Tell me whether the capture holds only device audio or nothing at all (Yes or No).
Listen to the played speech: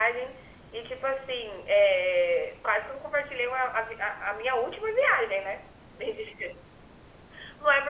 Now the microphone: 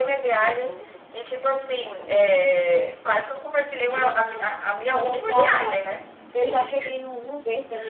No